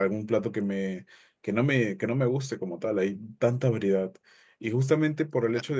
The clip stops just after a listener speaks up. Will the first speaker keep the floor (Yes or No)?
Yes